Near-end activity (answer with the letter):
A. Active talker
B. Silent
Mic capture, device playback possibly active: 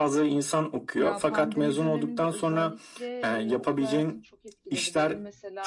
A